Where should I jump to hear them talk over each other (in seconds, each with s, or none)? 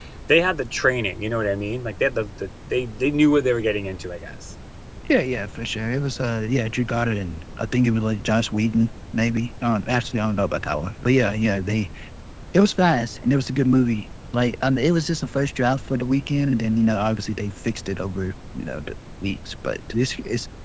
none